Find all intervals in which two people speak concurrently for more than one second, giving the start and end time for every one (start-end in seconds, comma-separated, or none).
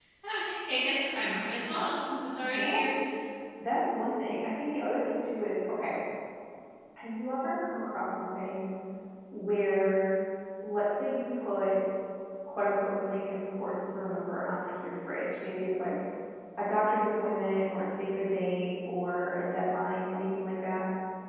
none